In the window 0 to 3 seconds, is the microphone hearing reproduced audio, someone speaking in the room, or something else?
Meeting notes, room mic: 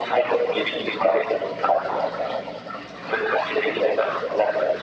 echo only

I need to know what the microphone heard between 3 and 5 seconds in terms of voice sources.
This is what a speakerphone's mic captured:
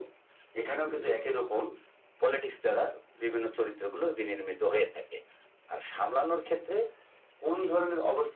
echo only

